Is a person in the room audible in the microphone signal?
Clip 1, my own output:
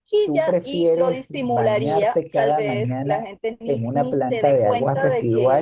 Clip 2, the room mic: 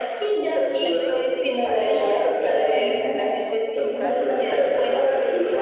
Yes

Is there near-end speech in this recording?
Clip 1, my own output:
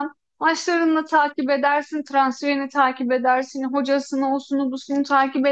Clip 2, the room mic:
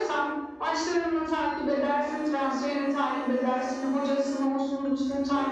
No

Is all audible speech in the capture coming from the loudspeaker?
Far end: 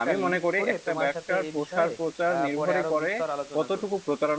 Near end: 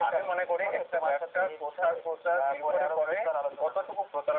Yes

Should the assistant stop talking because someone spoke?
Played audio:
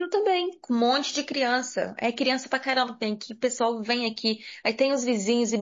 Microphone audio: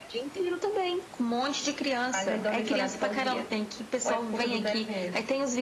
Yes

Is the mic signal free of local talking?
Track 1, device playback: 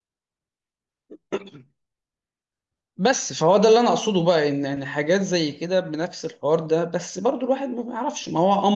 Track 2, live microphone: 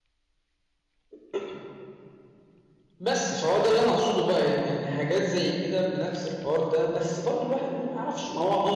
Yes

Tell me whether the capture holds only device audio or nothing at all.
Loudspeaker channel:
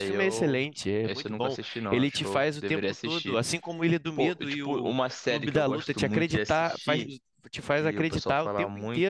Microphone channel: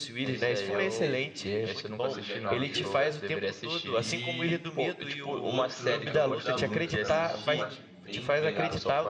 No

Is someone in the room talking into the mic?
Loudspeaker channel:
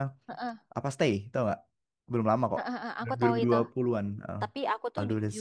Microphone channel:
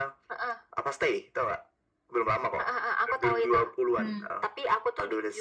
Yes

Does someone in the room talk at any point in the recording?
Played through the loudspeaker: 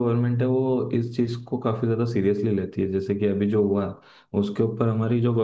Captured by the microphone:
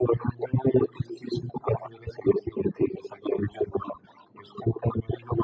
No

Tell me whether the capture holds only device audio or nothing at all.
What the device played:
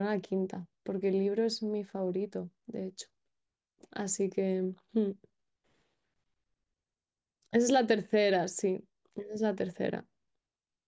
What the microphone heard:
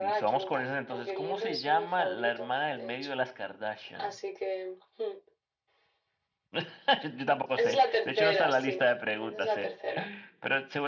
No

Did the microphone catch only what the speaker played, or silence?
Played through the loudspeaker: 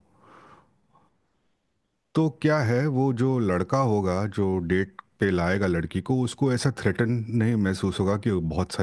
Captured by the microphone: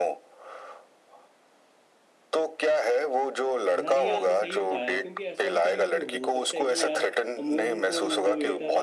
No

